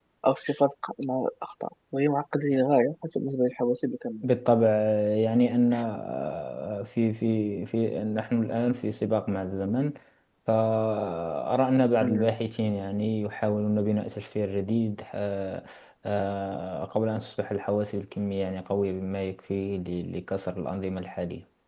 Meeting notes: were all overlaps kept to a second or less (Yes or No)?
Yes